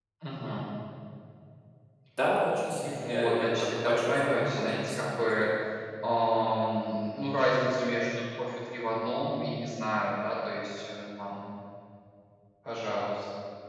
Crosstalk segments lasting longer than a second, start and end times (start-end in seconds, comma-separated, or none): 2.7-5.5